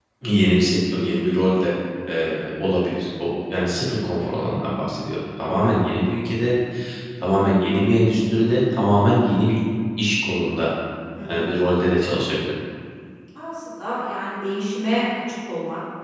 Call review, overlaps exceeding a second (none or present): none